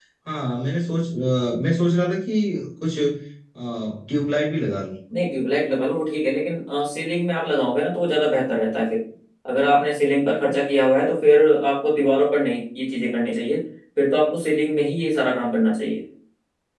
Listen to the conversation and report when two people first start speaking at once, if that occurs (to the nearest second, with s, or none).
none